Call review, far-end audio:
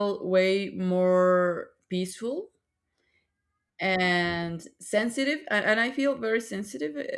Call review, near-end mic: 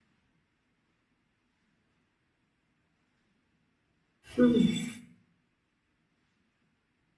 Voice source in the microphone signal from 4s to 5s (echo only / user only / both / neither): user only